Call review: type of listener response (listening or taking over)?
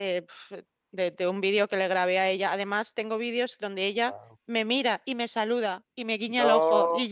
listening